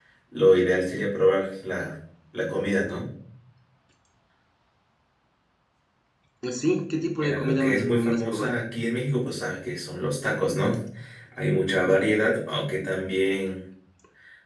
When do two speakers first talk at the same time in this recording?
7.2 s

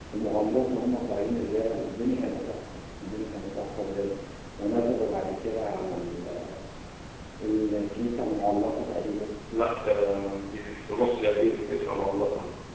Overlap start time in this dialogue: none

